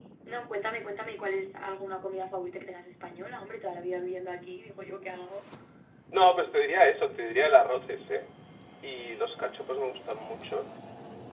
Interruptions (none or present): none